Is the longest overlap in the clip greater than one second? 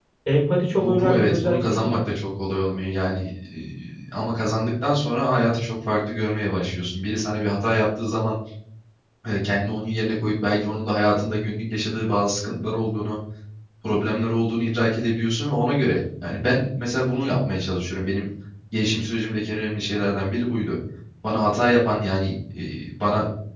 Yes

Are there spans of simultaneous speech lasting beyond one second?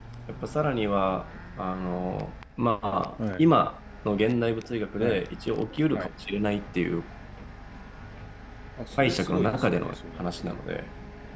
Yes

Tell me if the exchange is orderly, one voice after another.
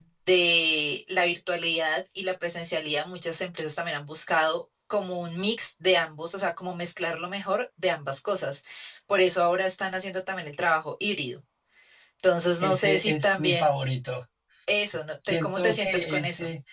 No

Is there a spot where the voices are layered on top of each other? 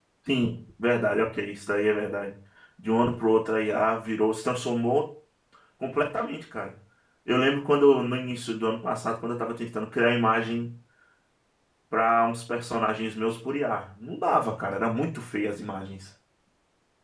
No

